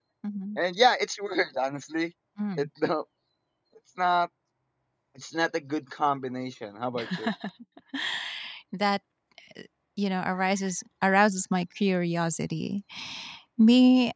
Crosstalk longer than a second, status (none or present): none